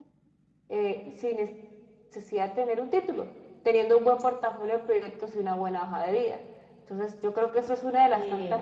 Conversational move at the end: listening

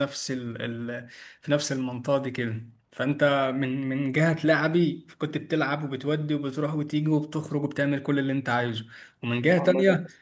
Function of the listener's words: listening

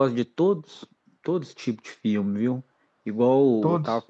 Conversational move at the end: listening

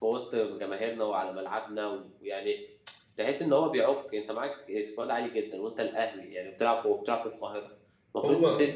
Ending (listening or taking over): listening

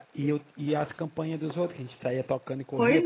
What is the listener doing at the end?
taking over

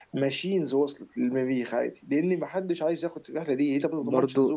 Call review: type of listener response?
taking over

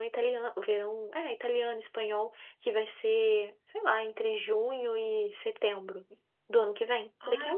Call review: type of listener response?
taking over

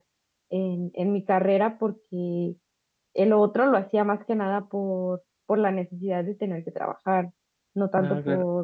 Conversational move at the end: listening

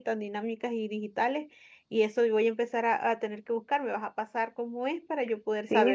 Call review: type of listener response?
taking over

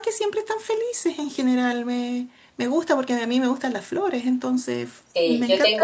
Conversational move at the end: taking over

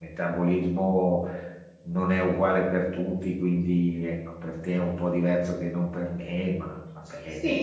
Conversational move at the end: taking over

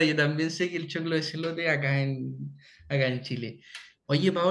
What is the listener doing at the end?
listening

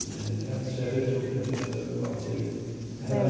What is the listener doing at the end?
listening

